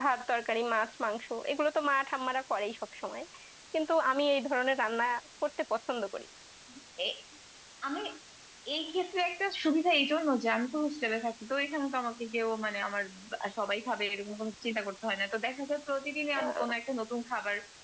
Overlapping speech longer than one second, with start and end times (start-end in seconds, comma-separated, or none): none